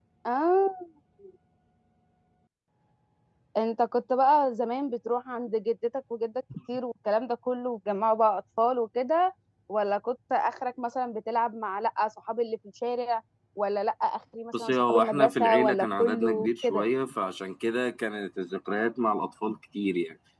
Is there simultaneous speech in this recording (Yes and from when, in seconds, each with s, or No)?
Yes, from 14.5 s